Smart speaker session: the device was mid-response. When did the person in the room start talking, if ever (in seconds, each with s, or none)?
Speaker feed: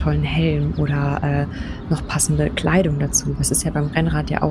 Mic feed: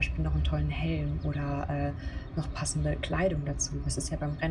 none